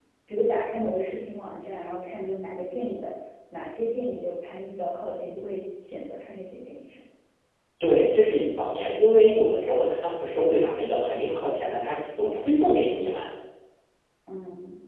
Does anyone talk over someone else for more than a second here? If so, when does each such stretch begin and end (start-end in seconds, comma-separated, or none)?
none